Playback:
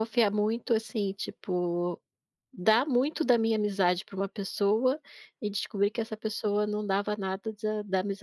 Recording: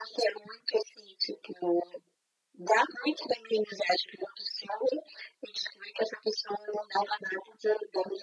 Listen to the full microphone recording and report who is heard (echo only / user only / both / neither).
echo only